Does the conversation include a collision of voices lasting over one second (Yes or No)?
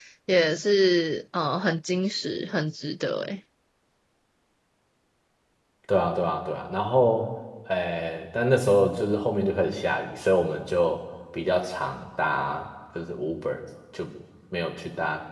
No